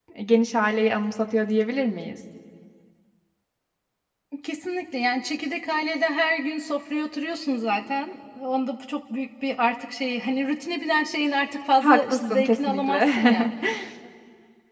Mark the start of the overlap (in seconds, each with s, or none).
11.8 s